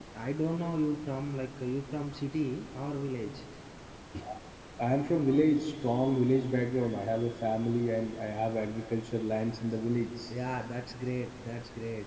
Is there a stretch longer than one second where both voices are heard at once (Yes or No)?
No